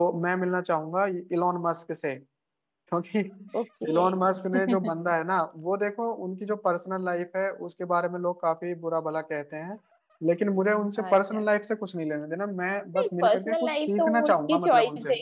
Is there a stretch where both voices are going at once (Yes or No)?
Yes